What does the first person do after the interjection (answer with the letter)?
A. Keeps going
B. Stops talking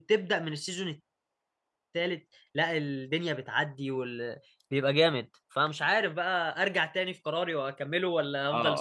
B